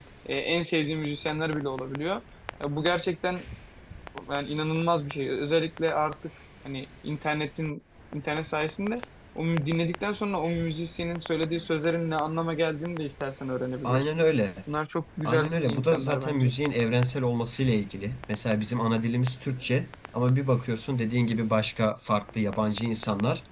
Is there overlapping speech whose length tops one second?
Yes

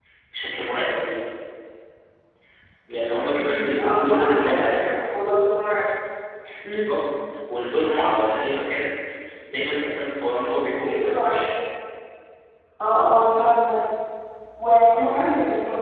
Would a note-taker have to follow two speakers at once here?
Yes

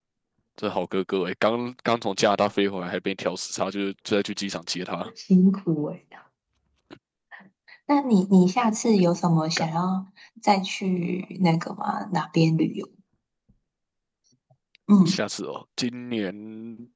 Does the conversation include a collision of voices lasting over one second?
No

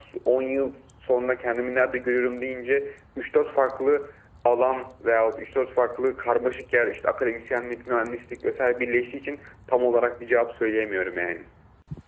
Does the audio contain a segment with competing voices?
No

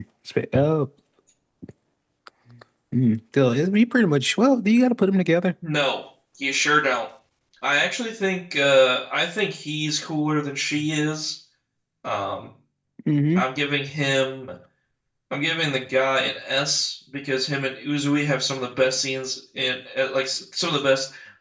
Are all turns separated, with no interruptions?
Yes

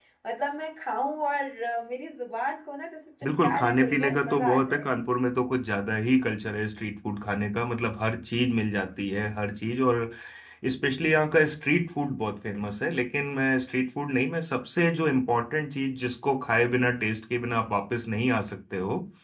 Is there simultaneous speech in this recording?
Yes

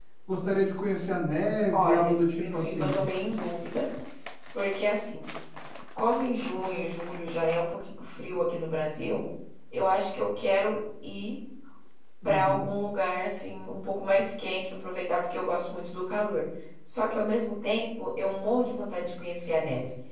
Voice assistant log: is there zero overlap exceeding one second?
No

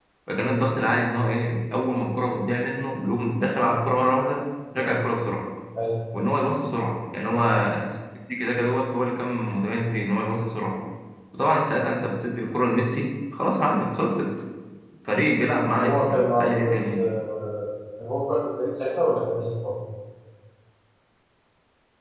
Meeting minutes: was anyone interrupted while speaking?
Yes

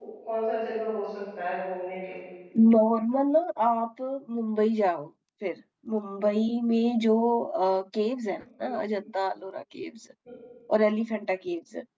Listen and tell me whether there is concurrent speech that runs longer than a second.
No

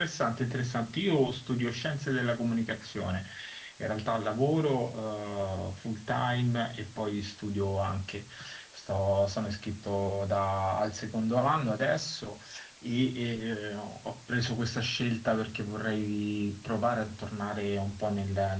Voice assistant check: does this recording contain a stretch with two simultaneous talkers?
No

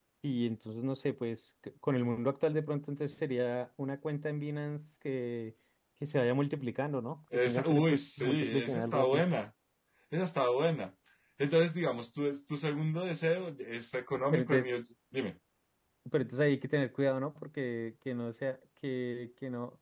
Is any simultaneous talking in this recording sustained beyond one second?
Yes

